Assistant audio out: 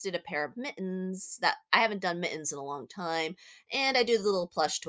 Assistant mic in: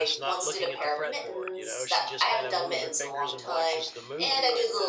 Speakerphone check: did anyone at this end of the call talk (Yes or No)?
Yes